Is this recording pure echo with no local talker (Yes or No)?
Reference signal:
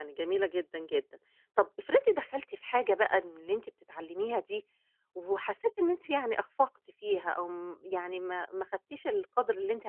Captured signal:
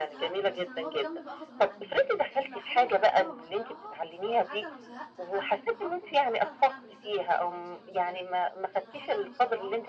No